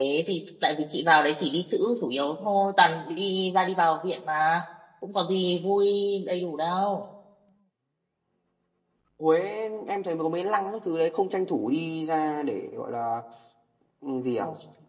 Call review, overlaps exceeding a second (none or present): none